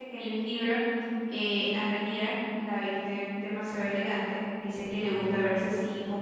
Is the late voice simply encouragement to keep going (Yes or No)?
Yes